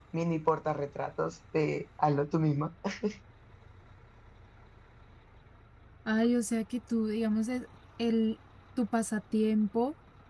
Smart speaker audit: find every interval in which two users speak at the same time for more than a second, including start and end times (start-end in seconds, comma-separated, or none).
none